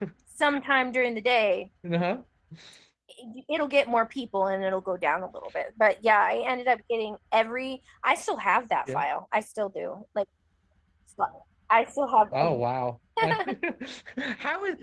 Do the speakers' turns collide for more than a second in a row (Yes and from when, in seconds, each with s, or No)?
No